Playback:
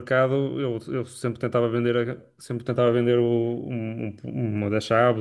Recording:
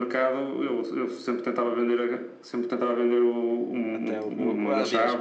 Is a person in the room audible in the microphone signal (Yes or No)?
Yes